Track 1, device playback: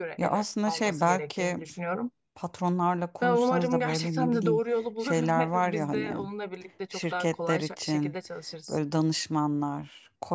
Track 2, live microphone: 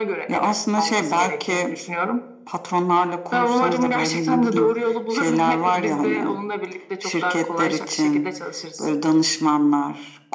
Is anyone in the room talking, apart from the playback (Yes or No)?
No